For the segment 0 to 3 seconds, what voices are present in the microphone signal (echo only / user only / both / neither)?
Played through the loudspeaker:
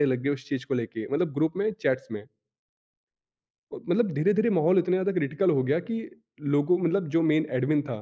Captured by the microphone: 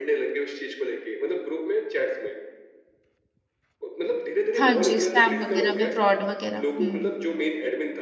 echo only